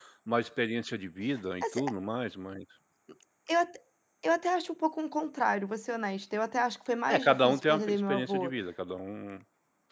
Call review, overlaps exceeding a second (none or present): present